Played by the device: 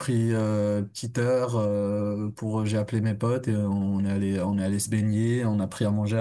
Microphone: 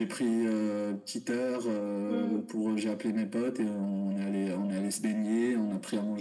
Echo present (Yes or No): Yes